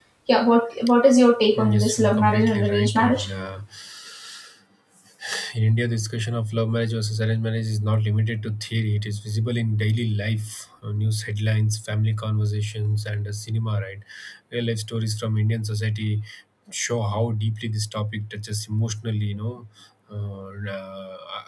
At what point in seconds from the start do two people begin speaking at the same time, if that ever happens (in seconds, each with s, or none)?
1.6 s